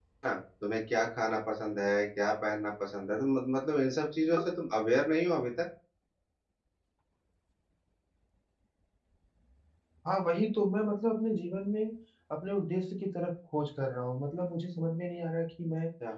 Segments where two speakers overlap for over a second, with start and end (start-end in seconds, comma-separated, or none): none